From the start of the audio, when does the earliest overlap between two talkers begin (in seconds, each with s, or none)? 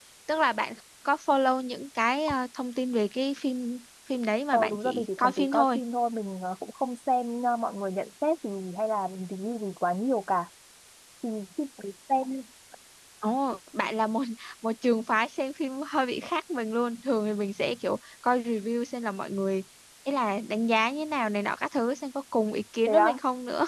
4.5 s